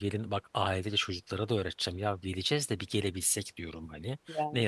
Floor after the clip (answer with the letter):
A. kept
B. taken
A